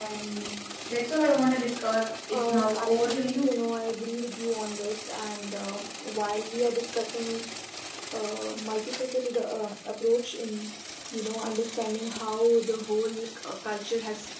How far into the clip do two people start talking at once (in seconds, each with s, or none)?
2.3 s